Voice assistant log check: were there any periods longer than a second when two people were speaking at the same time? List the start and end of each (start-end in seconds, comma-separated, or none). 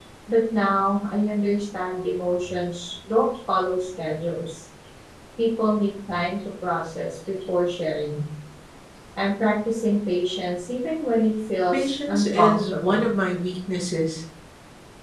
11.7-13.0